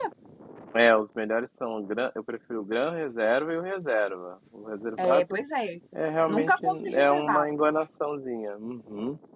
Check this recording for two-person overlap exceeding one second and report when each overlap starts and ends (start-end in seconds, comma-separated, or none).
6.3-7.5